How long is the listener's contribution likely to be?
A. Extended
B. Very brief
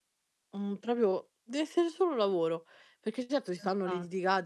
B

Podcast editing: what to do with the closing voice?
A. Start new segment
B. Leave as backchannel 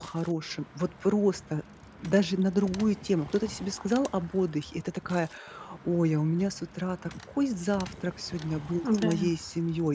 B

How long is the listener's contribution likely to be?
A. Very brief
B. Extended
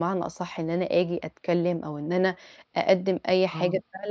A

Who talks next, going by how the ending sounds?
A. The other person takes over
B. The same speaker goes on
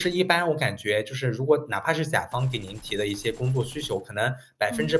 B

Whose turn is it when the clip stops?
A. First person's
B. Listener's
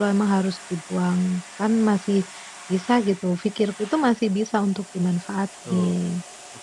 B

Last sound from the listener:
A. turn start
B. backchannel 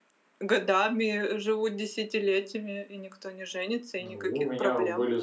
A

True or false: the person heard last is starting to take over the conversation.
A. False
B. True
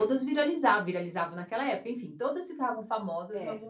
A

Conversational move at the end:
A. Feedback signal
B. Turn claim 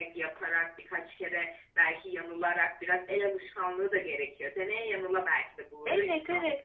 B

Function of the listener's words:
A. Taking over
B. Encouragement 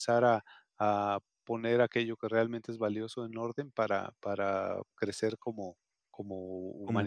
A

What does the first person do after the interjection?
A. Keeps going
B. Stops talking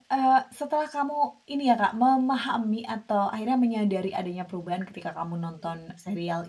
A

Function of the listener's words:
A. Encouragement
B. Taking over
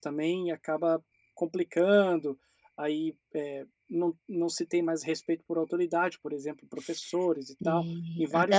B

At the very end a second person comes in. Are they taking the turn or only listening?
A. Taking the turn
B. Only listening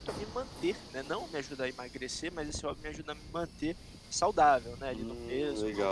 A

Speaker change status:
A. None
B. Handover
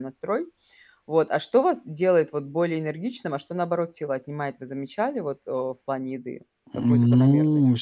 B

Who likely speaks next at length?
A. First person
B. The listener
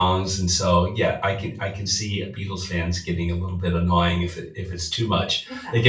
A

